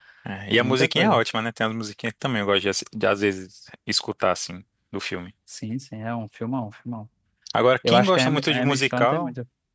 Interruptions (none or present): present